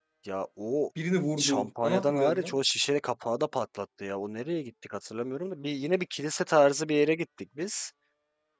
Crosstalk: present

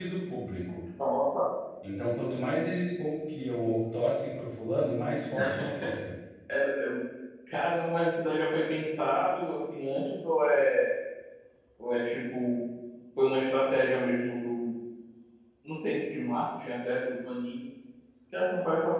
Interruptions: none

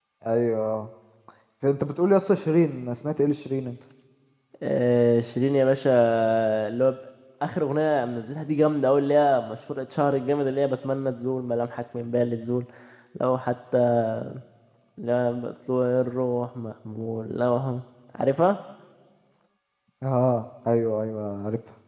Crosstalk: none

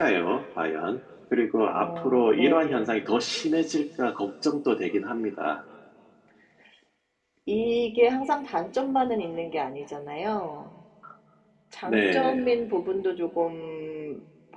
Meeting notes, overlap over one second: present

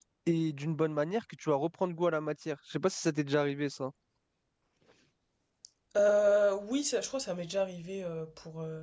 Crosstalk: none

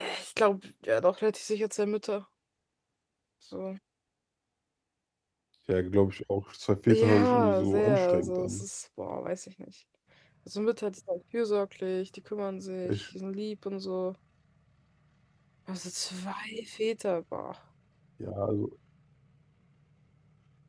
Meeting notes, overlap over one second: present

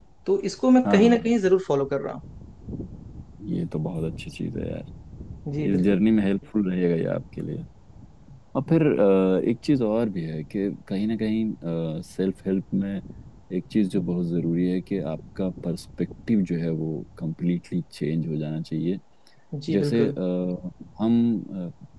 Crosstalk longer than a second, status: none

